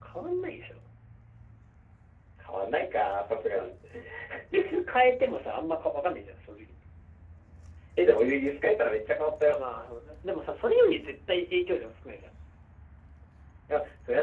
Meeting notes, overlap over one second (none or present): none